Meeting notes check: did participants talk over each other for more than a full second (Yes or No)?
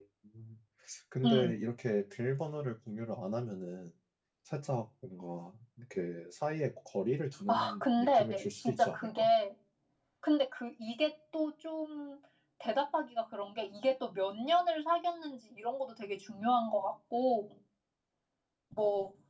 Yes